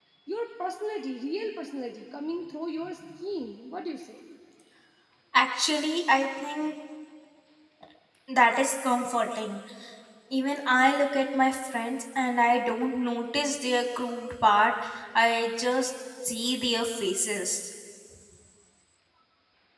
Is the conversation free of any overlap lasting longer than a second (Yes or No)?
Yes